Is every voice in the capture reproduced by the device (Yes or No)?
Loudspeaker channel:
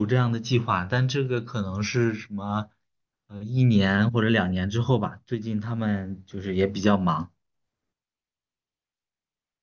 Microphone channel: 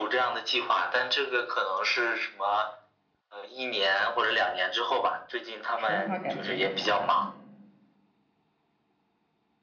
No